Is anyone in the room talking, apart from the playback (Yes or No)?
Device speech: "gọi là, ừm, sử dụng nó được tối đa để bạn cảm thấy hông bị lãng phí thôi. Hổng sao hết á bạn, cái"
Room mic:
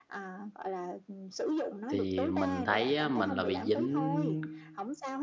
Yes